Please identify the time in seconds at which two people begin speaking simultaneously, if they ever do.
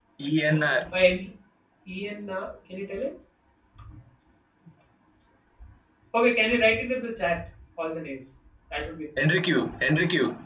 none

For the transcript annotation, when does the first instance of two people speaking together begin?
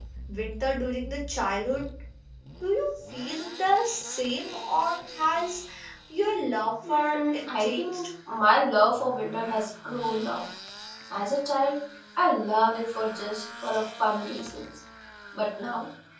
6.9 s

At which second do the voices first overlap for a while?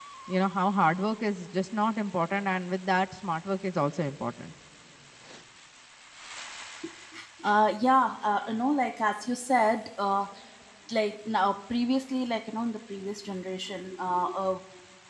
none

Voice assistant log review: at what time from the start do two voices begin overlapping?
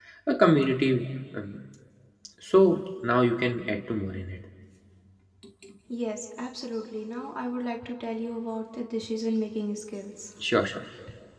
none

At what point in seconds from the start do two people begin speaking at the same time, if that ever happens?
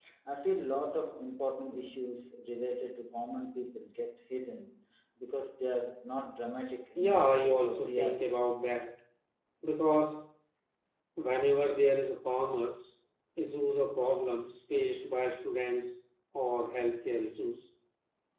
7.0 s

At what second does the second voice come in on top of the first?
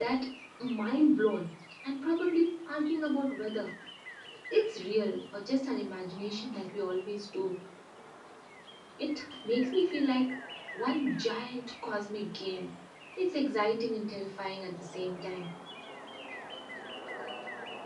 none

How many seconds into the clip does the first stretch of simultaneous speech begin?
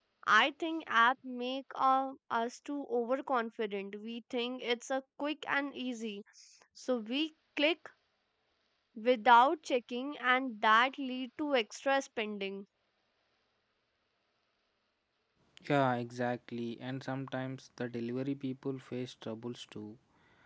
none

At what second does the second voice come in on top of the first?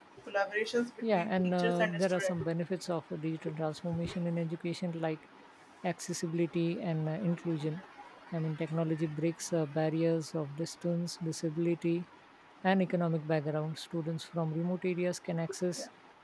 1.1 s

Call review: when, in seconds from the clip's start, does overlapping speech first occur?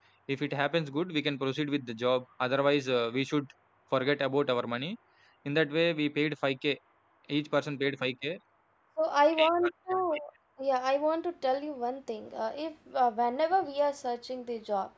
none

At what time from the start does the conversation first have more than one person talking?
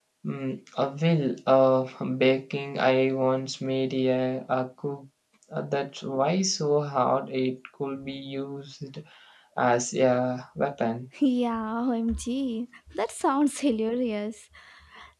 none

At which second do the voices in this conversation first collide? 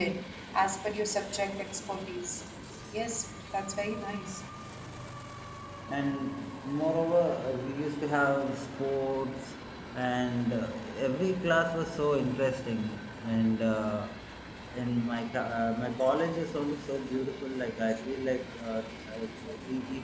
none

